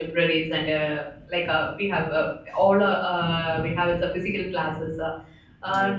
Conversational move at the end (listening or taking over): listening